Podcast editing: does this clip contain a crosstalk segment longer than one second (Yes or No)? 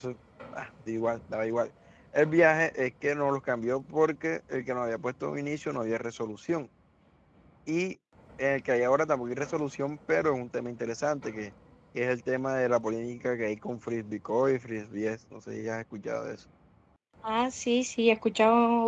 No